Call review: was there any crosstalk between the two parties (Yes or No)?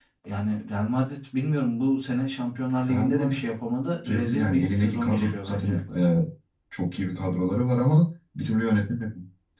Yes